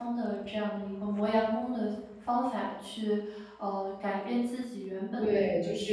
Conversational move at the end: taking over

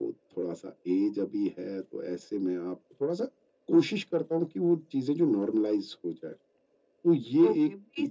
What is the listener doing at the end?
taking over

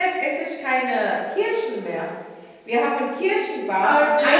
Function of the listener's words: listening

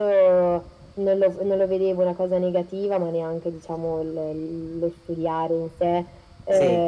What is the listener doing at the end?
listening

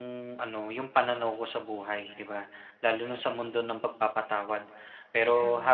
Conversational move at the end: listening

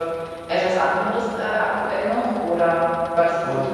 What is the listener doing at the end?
listening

